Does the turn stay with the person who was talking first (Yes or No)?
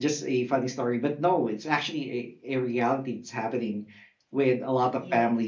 Yes